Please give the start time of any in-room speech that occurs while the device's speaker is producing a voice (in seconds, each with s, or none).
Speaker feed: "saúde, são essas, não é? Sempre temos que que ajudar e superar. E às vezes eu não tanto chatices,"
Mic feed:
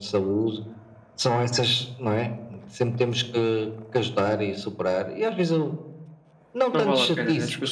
6.7 s